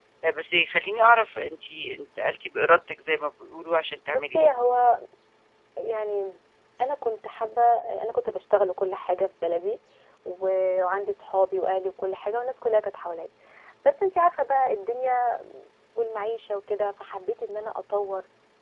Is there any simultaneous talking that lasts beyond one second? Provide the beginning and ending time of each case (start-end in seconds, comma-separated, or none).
none